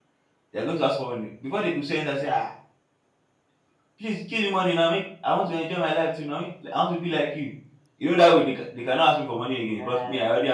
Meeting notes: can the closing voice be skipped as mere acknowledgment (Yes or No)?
No